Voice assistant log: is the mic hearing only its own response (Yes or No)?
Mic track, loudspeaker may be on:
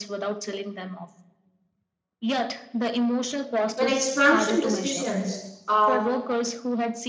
No